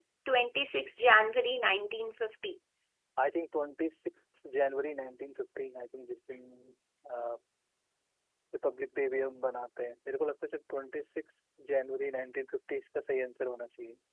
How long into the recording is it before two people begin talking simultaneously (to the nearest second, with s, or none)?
none